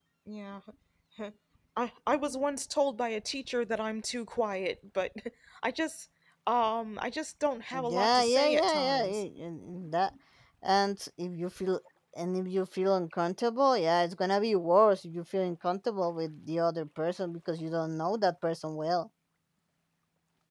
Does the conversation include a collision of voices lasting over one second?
Yes, from 7.7 s

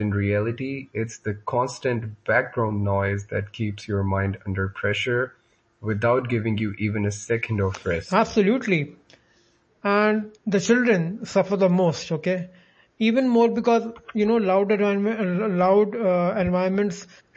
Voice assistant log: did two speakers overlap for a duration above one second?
No

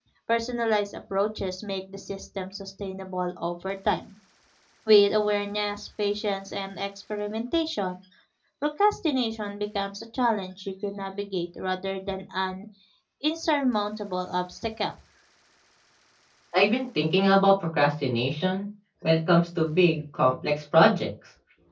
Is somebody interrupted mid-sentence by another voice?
No

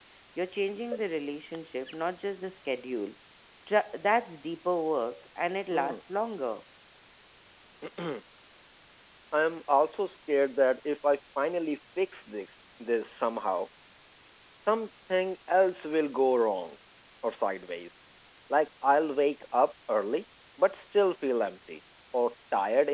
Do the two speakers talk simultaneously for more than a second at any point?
No

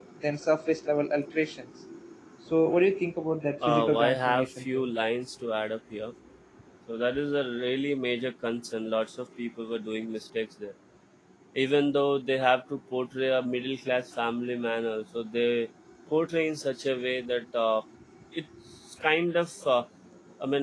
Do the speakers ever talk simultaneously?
Yes, from 3.6 s

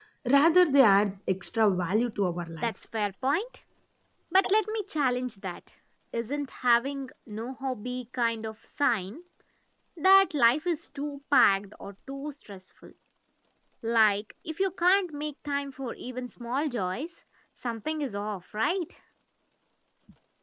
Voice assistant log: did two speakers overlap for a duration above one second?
No

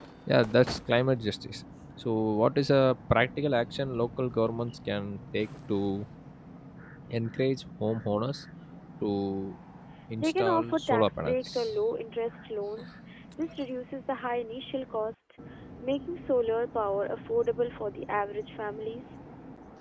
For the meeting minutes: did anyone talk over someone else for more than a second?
Yes, from 10.2 s

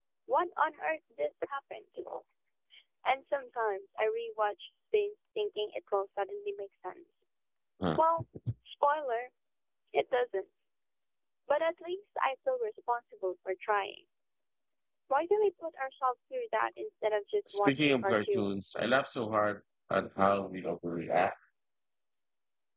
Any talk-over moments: Yes, from 17.5 s

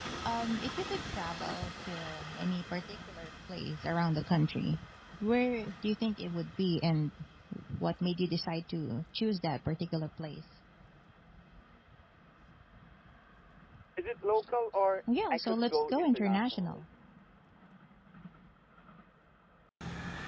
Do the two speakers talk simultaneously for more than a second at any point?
Yes, from 15.1 s

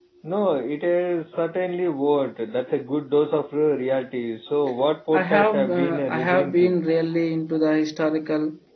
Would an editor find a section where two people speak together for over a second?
Yes, from 5.1 s

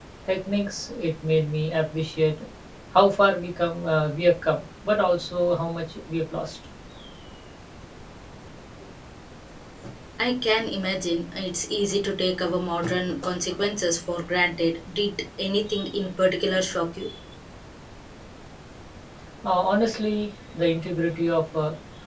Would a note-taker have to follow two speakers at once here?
No

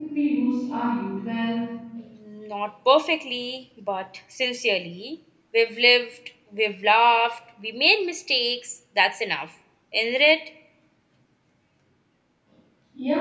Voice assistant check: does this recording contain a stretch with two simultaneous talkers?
No

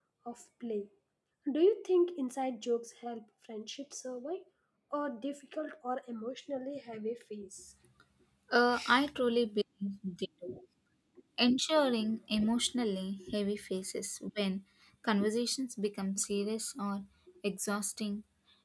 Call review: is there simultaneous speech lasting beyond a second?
No

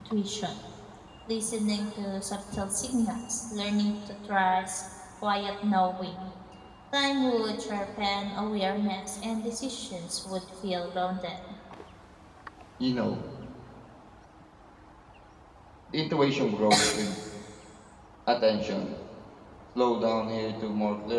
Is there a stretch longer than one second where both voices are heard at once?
No

